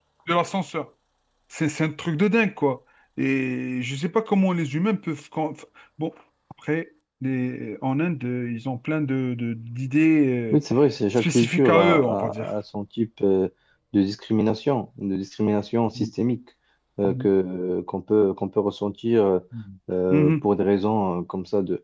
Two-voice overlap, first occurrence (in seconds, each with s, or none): 11.2 s